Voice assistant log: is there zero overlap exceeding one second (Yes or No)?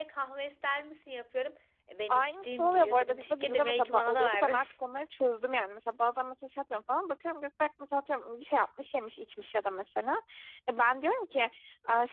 No